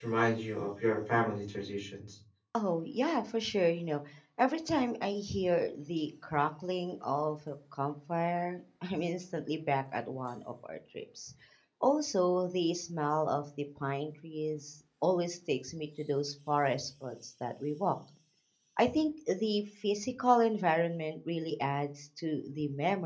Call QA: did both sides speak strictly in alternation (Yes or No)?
Yes